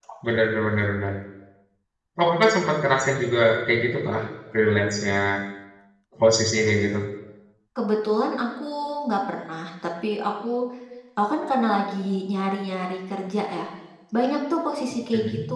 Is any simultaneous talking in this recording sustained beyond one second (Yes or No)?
No